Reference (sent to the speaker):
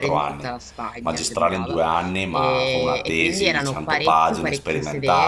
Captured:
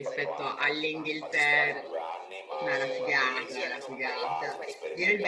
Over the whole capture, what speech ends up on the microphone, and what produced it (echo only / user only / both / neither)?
both